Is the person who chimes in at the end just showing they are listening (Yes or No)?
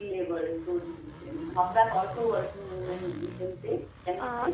No